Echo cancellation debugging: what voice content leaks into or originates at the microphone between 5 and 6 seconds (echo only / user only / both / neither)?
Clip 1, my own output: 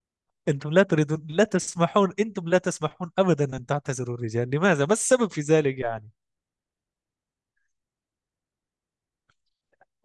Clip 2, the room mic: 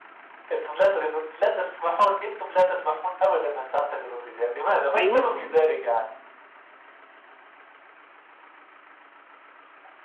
both